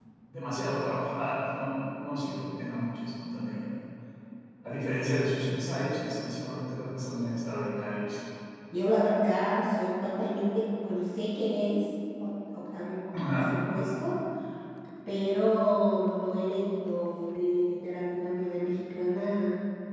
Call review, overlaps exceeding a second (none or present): none